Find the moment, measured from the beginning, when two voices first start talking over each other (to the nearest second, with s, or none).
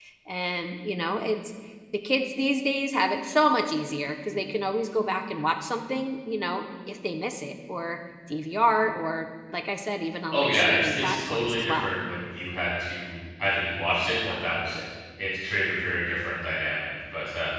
10 s